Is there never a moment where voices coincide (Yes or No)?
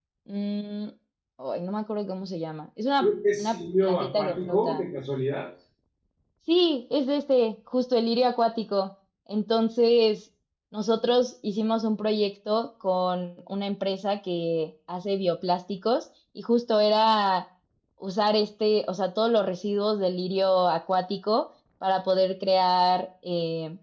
No